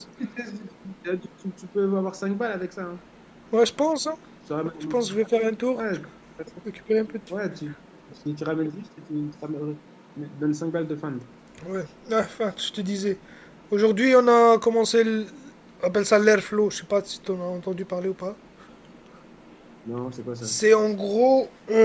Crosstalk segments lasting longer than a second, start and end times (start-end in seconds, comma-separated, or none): none